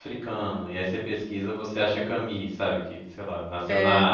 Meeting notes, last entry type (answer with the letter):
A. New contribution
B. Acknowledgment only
B